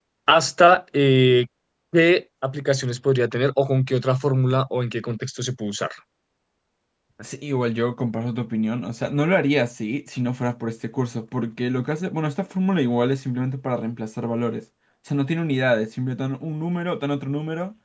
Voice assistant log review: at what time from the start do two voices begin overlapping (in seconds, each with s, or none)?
none